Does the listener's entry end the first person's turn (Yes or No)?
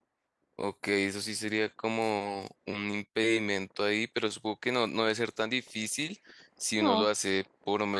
No